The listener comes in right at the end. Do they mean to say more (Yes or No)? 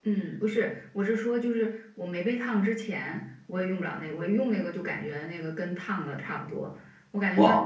No